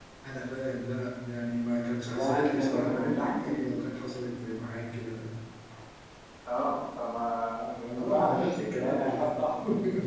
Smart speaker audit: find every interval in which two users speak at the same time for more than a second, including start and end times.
2.0-3.6, 8.0-9.3

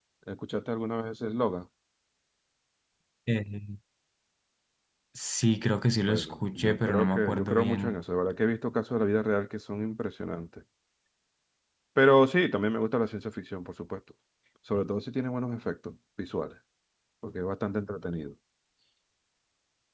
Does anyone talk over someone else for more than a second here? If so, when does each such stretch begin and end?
6.1-8.0

